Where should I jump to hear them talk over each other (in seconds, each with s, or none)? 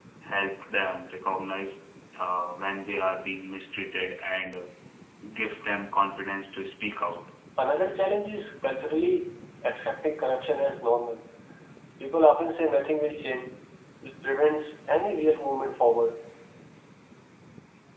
none